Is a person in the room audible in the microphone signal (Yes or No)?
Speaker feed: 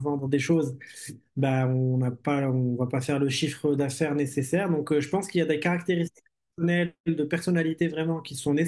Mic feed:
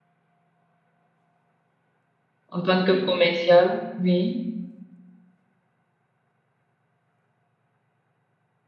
Yes